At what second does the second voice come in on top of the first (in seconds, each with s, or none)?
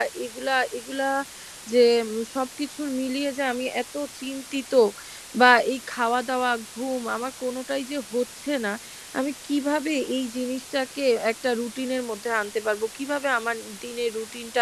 none